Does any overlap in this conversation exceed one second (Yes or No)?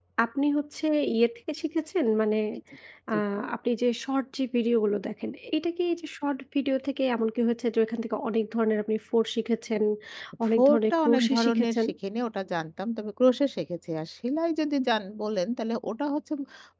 Yes